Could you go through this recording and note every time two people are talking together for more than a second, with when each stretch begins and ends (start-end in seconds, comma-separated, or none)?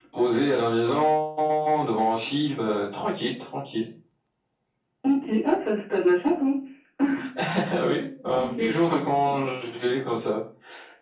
none